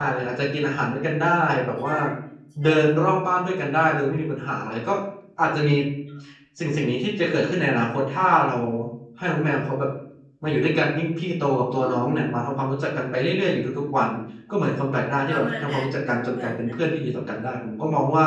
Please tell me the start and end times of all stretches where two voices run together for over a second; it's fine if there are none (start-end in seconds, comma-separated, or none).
15.3-16.5